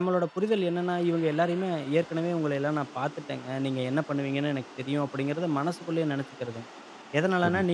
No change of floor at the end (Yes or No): Yes